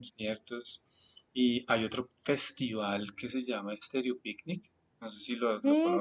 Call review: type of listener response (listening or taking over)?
taking over